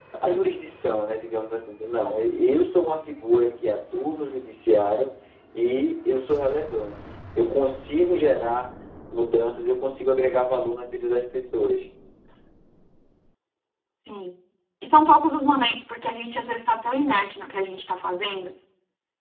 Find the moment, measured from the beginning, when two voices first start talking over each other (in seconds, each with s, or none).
none